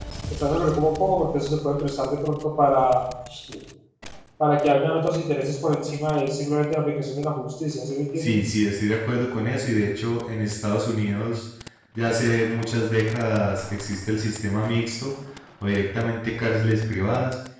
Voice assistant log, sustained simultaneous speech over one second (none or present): none